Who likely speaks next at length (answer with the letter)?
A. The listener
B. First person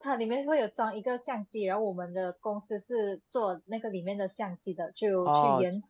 B